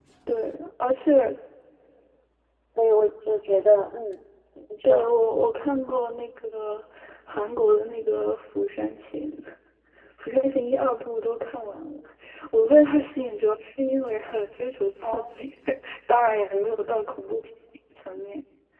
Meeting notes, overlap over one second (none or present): none